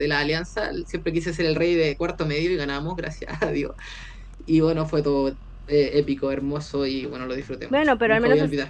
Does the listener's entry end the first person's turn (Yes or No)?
Yes